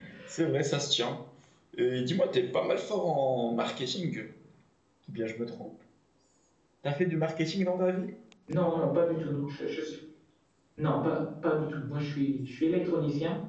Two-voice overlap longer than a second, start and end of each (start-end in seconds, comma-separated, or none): none